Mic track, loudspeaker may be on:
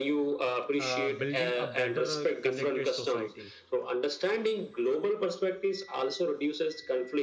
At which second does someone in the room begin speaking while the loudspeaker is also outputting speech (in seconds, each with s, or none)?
0.8 s